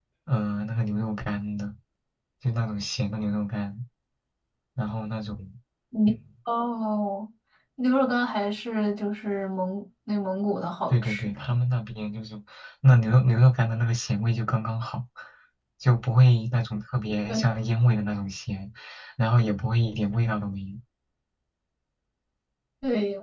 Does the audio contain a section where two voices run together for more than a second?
No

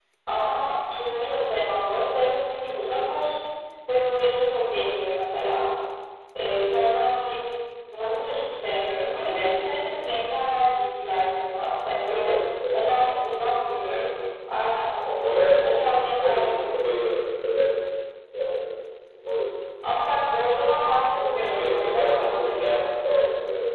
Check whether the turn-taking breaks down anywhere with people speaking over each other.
Yes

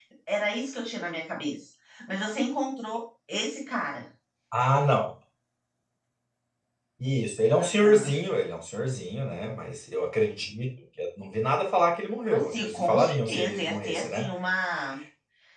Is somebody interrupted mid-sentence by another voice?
Yes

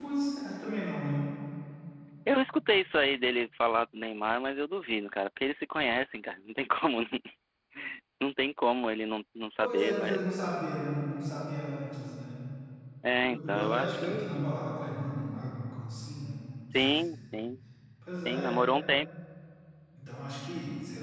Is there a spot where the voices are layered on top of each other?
Yes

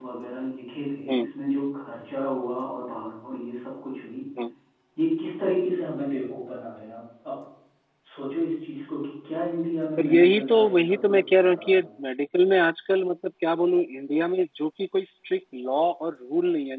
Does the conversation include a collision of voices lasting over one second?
Yes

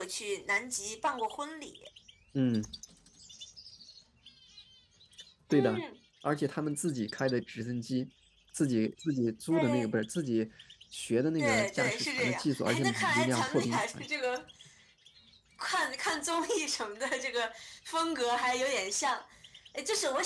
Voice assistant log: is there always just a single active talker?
No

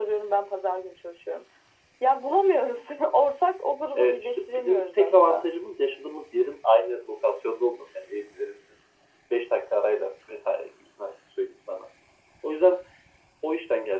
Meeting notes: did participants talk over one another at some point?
Yes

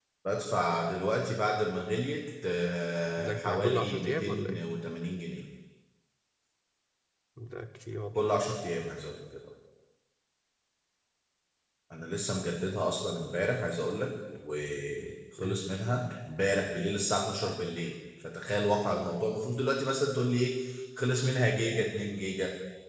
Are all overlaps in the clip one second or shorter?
No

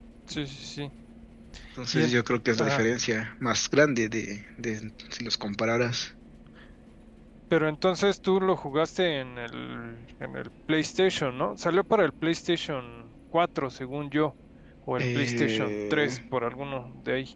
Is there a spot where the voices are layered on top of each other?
Yes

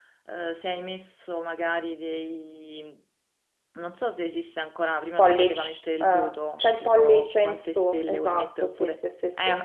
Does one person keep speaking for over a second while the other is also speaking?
Yes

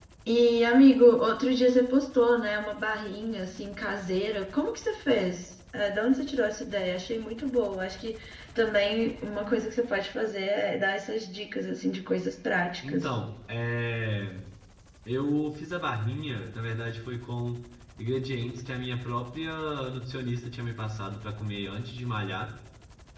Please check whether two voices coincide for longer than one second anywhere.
No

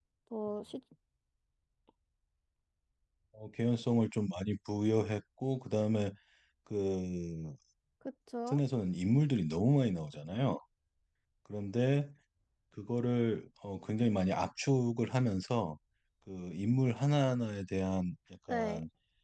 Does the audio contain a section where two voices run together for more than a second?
No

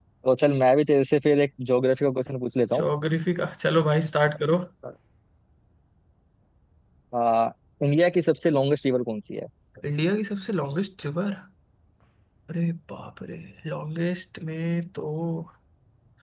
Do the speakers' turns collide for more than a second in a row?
No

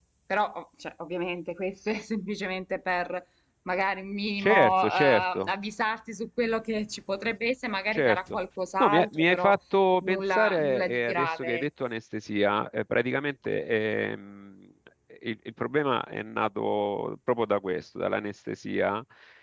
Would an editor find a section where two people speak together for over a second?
Yes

